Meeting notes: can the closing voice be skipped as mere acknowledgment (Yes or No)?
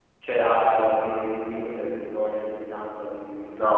No